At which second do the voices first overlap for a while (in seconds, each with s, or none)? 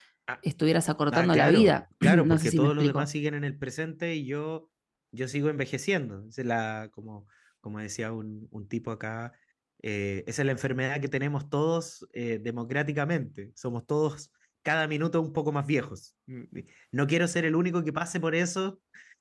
1.1 s